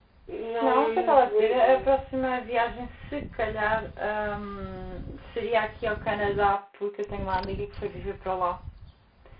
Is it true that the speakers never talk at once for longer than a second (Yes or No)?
No